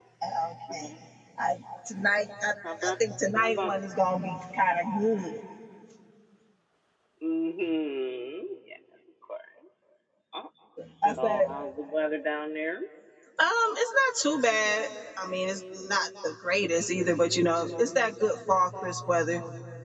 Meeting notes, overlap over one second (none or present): none